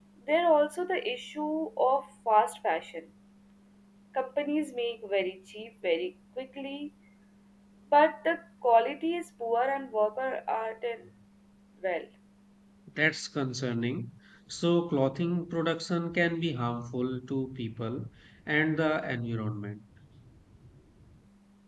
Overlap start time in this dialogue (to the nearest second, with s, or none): none